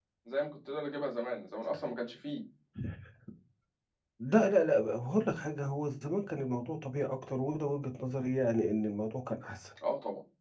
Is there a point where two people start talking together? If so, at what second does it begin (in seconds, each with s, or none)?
none